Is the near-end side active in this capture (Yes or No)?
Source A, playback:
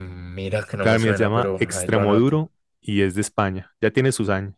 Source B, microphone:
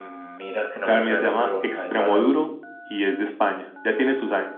No